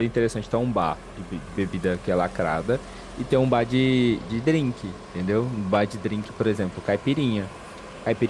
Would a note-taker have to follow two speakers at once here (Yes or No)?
No